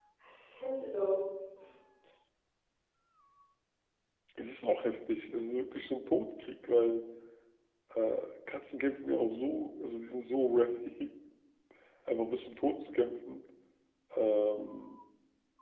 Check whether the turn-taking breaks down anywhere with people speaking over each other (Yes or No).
No